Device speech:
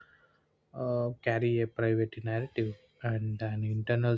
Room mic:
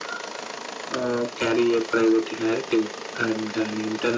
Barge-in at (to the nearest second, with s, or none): none